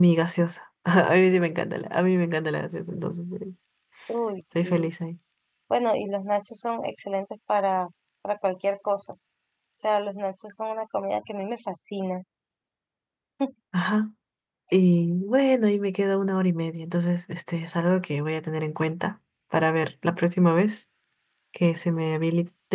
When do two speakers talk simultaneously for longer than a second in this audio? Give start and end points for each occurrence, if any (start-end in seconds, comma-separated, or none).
none